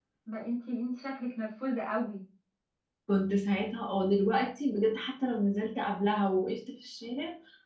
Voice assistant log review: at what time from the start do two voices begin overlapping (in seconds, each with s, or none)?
none